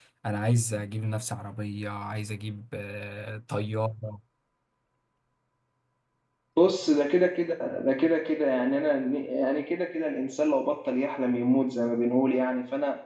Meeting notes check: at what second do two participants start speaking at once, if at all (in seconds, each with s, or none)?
none